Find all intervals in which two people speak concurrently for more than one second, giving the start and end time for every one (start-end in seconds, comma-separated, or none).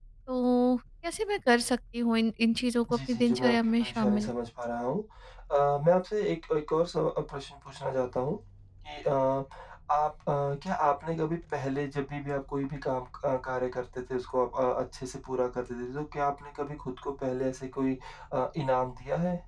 2.9-4.3